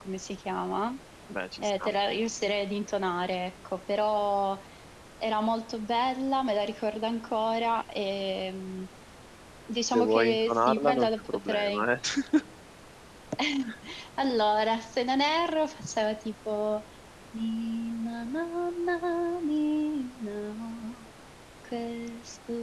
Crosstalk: present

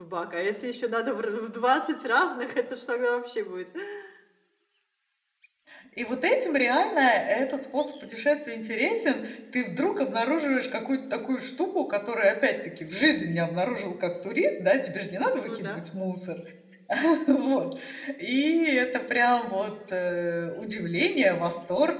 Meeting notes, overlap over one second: none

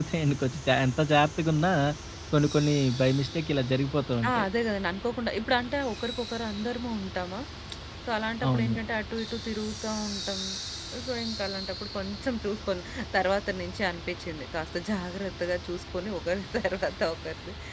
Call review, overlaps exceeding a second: none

